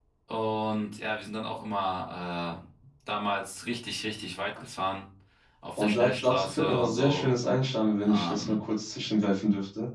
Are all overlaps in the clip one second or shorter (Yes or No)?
No